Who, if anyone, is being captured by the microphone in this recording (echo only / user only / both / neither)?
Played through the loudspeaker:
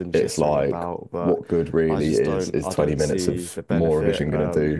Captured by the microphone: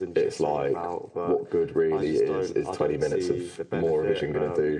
echo only